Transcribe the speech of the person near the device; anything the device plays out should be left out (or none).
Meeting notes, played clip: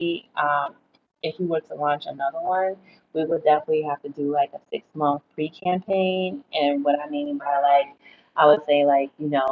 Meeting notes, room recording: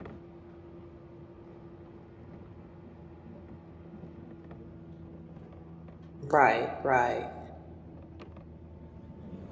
Right, right.